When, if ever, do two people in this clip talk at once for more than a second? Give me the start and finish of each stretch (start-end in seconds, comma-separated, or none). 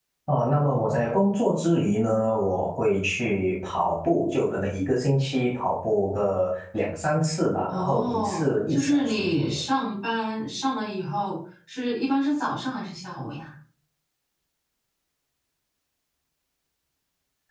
7.7-9.6